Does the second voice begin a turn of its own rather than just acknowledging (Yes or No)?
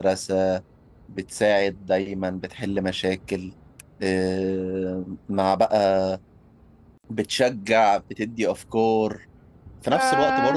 No